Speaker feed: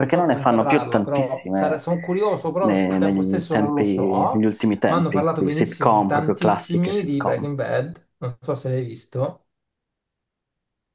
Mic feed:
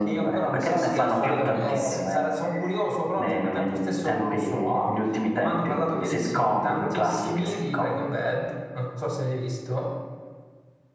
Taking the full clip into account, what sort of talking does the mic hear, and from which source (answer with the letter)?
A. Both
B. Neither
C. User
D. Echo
A